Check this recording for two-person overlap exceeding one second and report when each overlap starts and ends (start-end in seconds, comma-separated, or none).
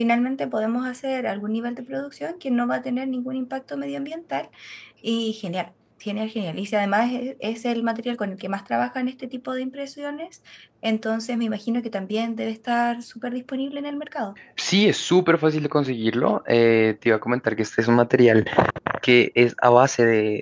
none